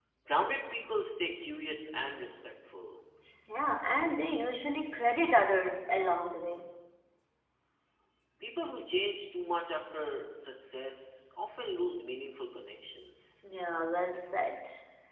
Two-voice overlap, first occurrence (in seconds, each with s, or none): none